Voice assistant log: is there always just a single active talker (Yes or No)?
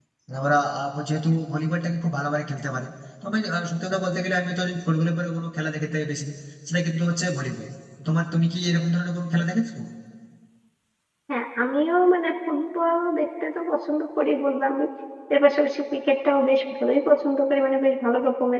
Yes